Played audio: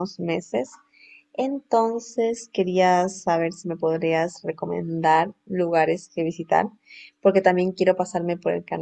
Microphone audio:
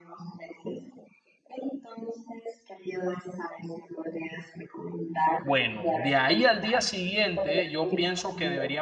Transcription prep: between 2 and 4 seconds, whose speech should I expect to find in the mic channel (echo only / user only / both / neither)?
echo only